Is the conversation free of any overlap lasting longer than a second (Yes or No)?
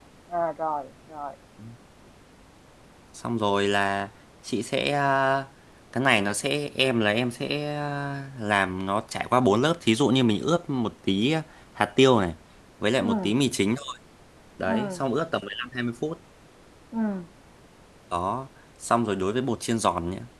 Yes